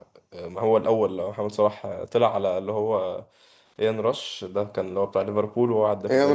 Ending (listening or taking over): taking over